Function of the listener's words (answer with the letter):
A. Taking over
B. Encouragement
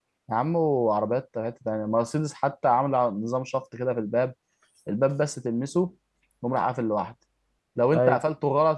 B